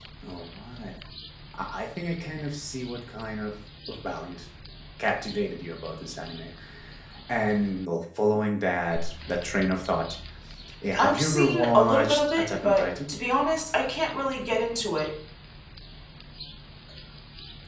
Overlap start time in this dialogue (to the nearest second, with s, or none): 11 s